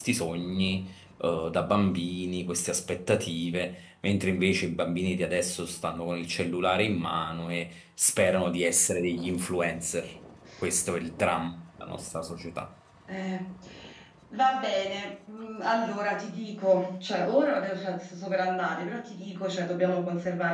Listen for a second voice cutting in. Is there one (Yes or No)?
No